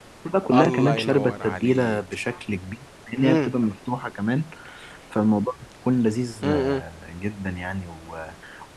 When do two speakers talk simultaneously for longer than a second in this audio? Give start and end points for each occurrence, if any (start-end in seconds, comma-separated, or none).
0.5-2.0